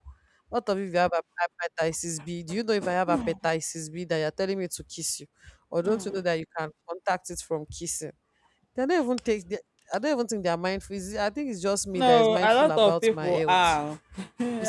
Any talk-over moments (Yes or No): Yes